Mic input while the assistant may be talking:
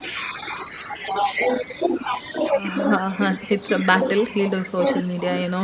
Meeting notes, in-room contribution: present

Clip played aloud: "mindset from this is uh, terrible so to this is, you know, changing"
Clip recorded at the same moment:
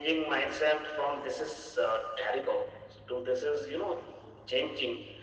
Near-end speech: none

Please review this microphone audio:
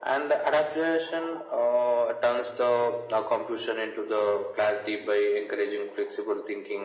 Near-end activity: none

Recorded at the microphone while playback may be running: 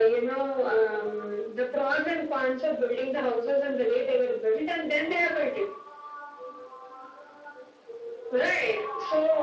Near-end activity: none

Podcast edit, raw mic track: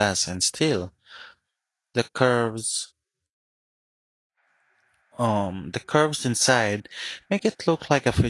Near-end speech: present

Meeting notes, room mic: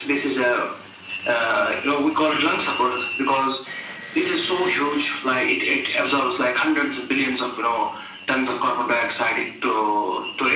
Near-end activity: none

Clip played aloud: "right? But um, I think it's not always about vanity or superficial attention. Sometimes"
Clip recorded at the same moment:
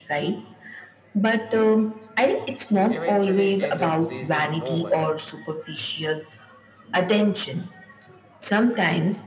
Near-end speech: present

